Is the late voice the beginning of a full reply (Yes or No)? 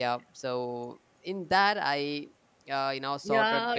Yes